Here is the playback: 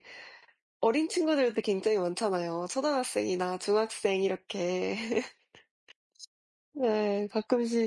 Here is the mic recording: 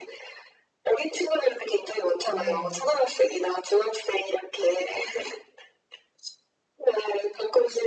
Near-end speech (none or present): present